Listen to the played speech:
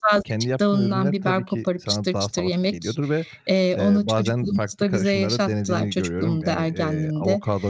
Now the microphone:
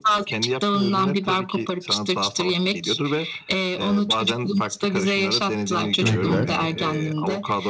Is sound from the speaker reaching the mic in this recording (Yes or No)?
Yes